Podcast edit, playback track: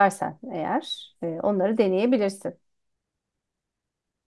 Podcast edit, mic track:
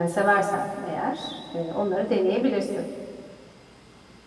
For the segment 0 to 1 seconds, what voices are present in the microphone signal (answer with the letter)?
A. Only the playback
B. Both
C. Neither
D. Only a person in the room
A